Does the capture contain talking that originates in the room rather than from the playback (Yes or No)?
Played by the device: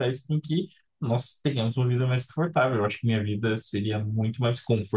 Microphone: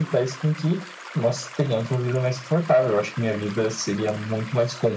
No